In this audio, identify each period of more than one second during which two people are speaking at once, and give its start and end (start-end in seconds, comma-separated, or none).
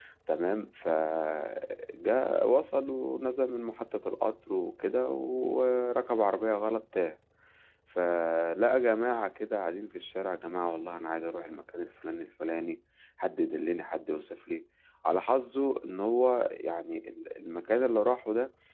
none